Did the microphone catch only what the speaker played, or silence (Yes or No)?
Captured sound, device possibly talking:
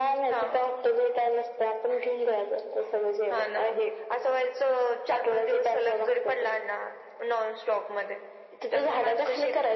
Yes